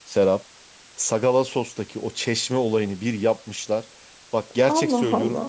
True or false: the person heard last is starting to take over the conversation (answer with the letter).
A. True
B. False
B